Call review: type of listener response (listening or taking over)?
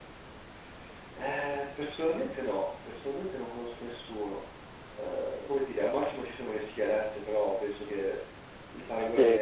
taking over